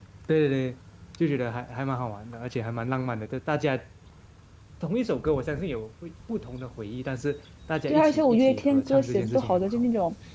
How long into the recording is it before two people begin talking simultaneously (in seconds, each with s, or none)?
7.9 s